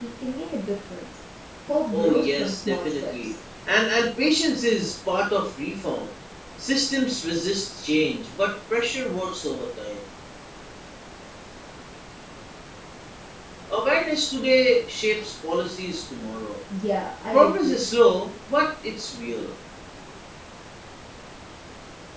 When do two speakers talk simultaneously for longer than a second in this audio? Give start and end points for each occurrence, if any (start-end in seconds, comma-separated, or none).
1.9-3.3